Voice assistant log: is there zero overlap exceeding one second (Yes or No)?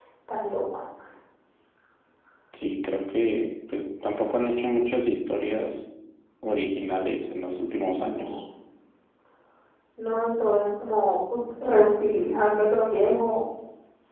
Yes